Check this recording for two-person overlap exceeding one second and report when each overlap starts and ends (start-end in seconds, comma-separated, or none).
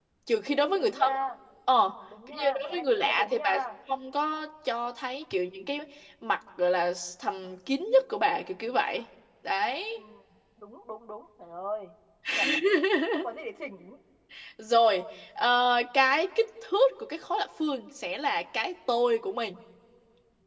2.3-3.6